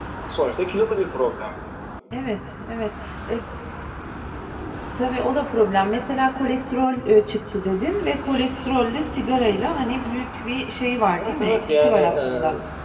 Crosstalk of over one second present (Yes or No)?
Yes